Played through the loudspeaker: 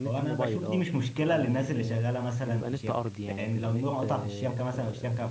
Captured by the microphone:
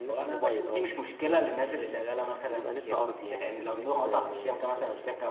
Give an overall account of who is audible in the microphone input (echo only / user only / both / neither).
echo only